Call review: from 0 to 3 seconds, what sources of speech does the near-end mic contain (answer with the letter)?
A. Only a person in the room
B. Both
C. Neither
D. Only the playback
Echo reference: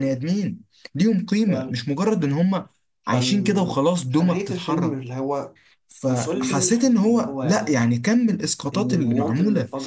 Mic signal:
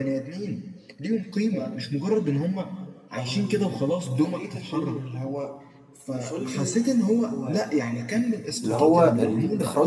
D